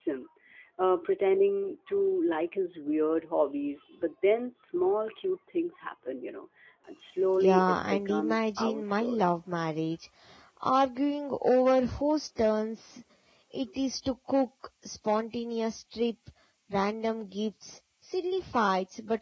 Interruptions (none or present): present